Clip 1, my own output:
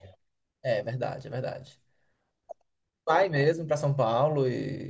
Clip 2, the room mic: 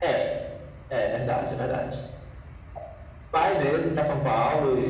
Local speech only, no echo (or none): none